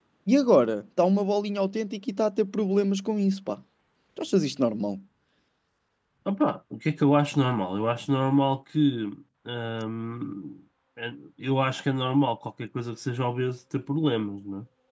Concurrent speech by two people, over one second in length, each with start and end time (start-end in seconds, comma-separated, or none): none